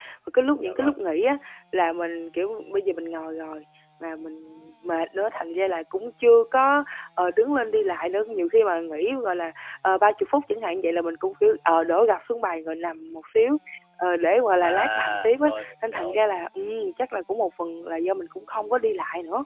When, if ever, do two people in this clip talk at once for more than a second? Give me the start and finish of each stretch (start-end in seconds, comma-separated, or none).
14.6-16.2